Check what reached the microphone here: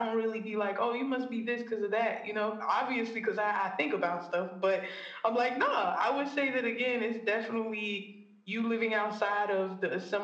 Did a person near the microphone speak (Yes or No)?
No